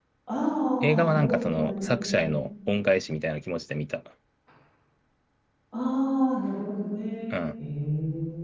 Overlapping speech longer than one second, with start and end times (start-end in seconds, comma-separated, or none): 0.8-2.2